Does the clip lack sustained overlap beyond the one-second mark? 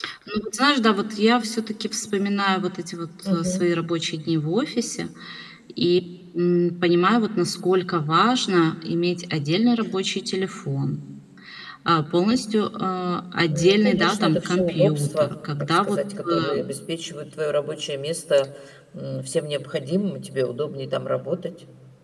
No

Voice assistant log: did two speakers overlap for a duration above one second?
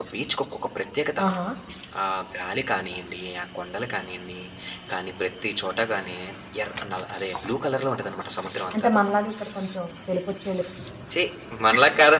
No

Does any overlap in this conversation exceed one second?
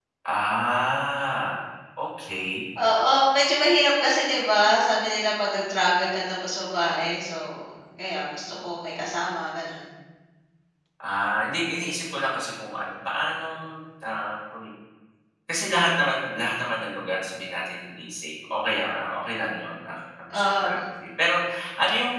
No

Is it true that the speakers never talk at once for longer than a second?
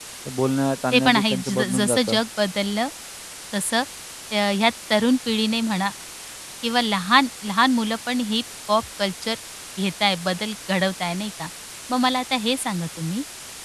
No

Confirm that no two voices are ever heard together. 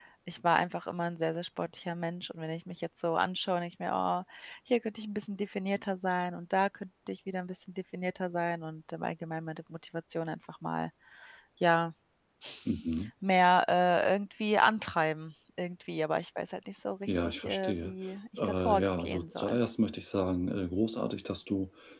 No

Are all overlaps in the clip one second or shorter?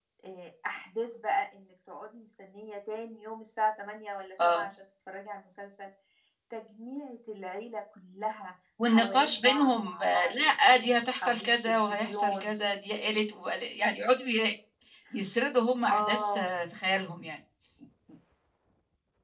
No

